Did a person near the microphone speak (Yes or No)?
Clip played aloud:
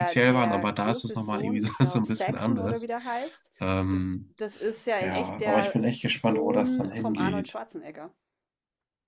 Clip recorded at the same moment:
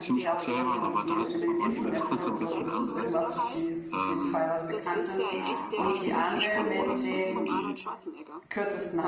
Yes